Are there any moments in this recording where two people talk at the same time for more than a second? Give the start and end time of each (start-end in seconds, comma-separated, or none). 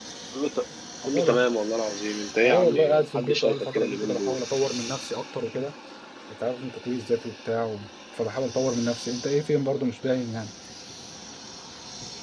2.4-4.4